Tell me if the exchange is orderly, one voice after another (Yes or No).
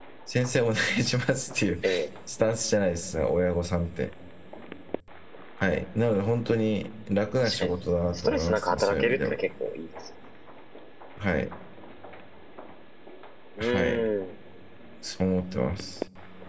No